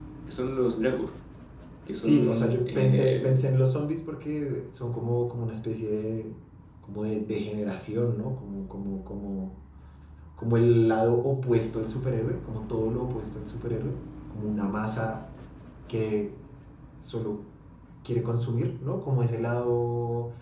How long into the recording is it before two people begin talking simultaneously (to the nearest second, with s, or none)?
2 s